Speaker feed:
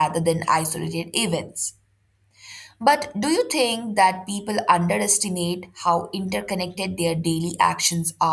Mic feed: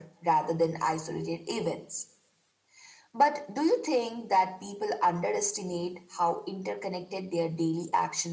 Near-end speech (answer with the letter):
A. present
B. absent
B